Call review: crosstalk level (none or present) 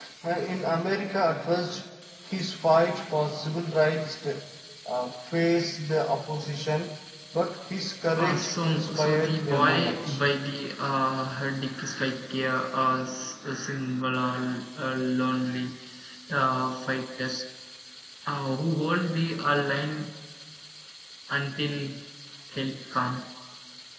present